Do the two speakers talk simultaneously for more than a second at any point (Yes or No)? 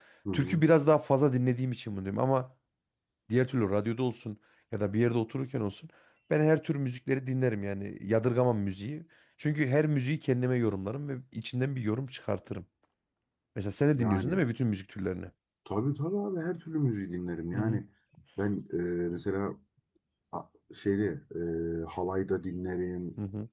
No